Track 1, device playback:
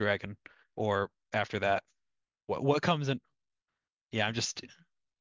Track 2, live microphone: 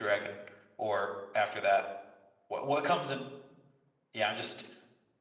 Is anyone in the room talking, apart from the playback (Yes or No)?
No